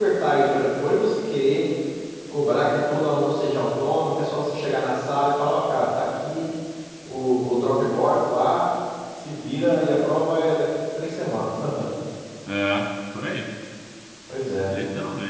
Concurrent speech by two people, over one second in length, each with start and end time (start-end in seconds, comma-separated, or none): none